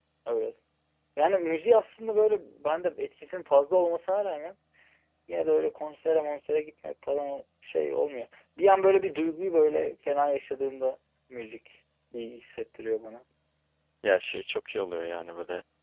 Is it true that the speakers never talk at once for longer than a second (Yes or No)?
Yes